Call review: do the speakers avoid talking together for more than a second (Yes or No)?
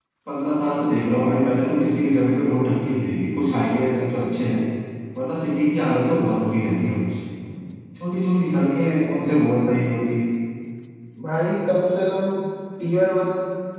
Yes